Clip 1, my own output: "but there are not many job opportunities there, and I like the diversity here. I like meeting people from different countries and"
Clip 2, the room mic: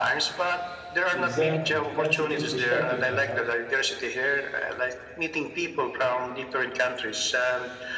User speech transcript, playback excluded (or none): Exactly. That's a good perspective to have.